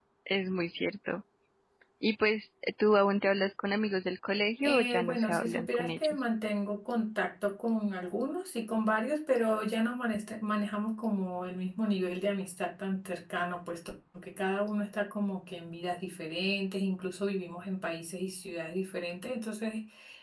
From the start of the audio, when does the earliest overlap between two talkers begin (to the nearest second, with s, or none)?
5 s